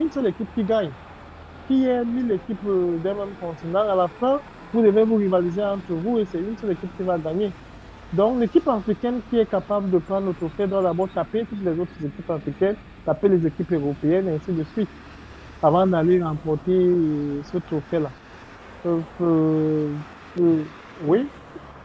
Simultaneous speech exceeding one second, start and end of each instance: none

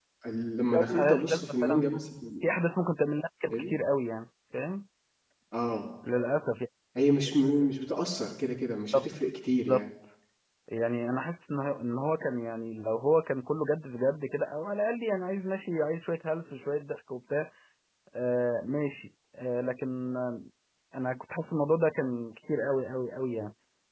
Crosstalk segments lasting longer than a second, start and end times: 0.6-1.9

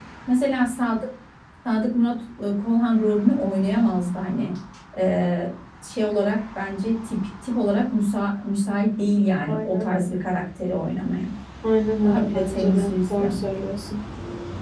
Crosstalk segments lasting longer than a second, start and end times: 12.0-13.4

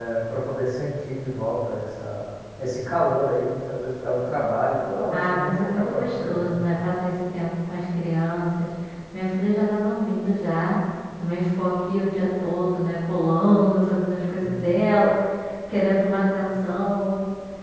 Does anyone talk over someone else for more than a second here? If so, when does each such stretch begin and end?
5.1-6.7

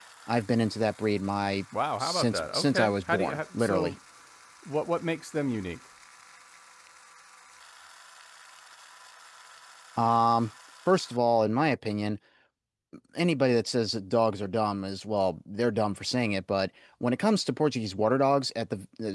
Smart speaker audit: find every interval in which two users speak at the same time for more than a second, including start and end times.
2.0-4.0

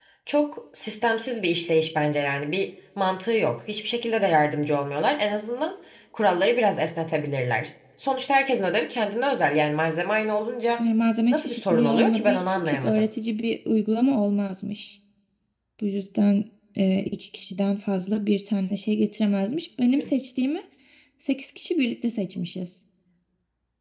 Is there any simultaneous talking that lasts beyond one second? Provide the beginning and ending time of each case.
11.3-13.1

